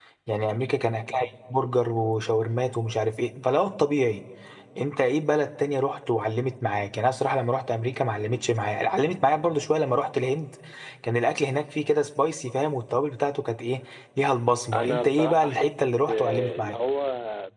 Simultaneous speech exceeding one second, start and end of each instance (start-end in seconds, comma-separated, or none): 14.7-16.8